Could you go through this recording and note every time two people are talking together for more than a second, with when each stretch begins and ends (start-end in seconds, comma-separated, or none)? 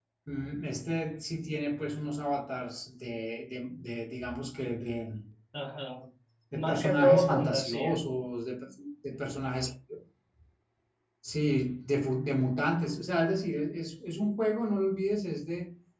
6.5-8.0